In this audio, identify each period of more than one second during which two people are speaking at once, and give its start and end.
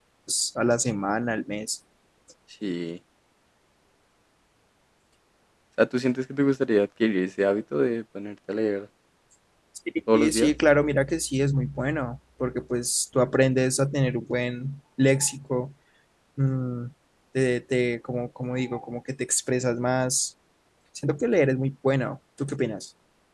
none

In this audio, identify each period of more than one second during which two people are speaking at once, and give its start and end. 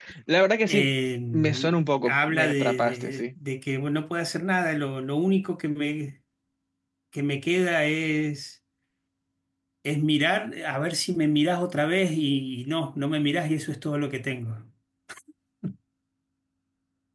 2.0-3.3

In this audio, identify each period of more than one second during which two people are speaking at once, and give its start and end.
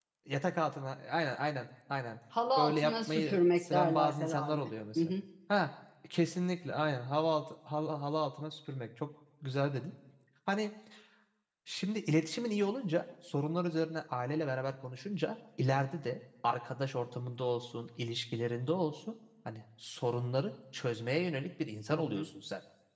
2.6-5.1

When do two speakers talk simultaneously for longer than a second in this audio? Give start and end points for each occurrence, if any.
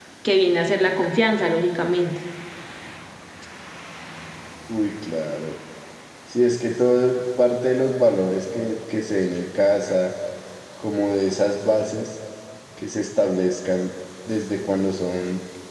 none

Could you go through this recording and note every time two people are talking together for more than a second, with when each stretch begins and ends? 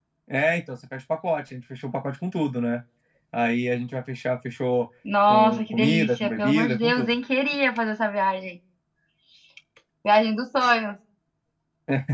5.3-7.2

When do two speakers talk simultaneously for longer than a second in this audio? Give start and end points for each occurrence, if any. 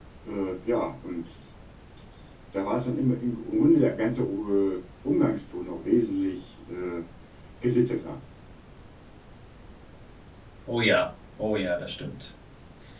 none

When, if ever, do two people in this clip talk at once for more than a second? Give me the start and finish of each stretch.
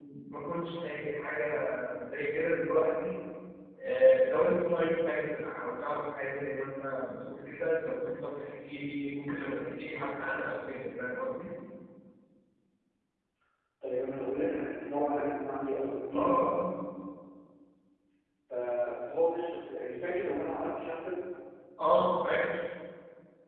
none

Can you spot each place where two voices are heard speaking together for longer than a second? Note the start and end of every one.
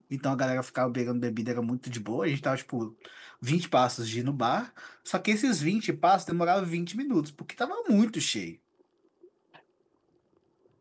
none

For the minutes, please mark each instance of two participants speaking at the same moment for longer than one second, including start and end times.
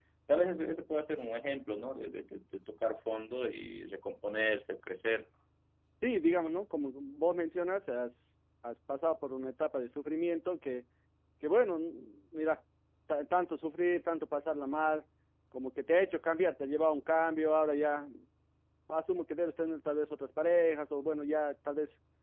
none

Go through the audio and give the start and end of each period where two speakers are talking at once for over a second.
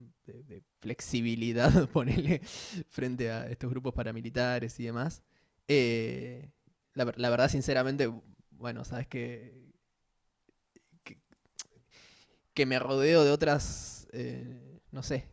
none

